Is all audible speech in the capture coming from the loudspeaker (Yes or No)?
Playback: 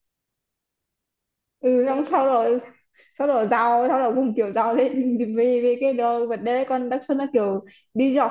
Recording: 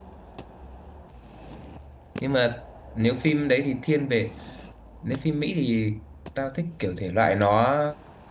No